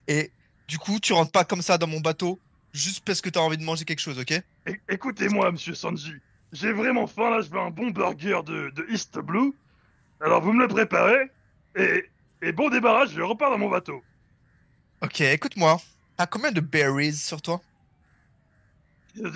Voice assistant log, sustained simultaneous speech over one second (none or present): none